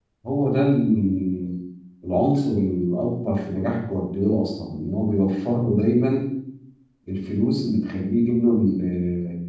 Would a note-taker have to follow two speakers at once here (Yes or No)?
No